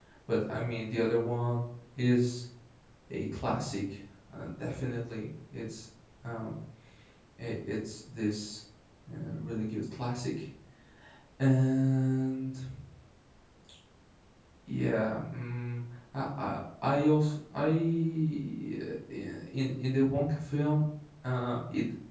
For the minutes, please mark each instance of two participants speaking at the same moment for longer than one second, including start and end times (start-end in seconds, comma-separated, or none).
none